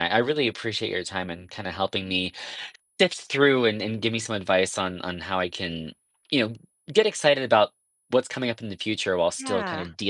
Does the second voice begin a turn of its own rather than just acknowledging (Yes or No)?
No